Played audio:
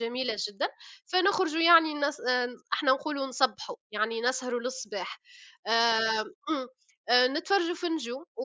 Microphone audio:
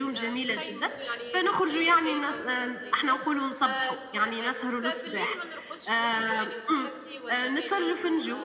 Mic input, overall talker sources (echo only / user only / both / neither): both